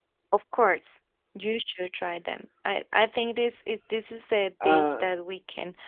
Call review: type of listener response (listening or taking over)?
listening